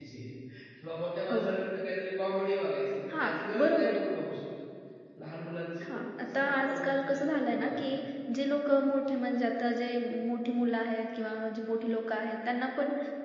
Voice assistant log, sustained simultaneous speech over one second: present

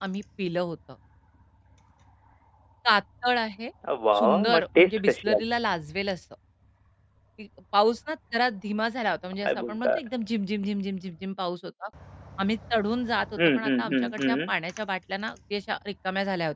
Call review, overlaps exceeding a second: present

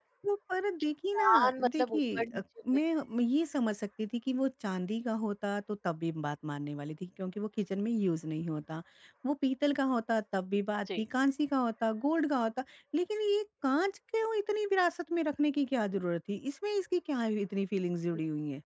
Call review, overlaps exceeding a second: present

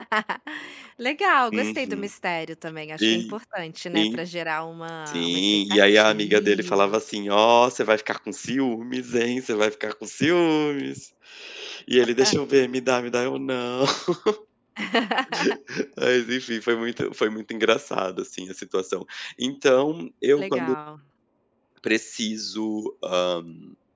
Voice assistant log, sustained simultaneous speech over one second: present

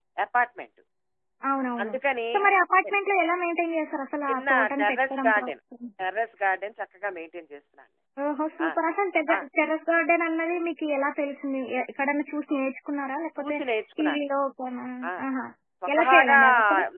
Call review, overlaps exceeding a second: present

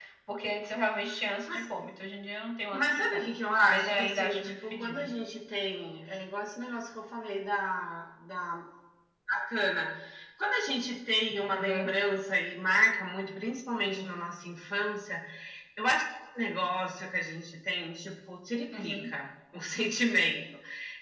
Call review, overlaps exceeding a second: present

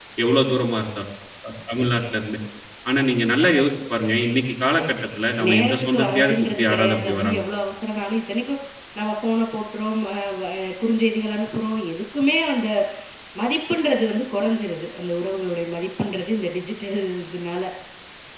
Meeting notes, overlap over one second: present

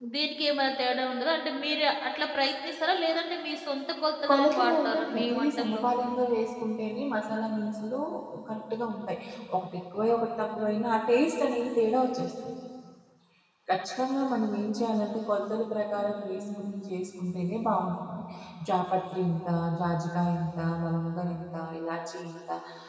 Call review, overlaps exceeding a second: present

